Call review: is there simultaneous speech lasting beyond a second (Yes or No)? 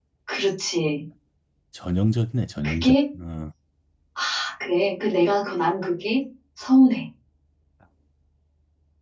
No